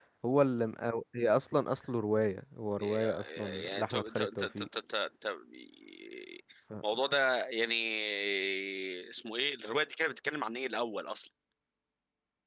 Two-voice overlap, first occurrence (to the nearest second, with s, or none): 3 s